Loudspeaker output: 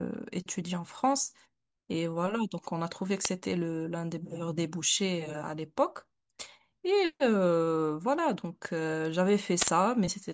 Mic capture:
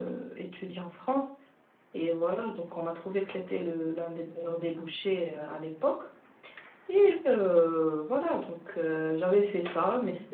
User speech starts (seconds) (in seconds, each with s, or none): none